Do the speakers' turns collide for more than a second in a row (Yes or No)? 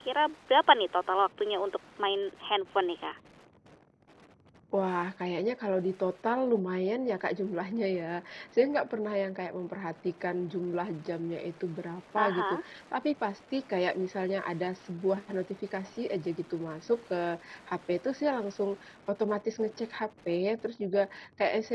No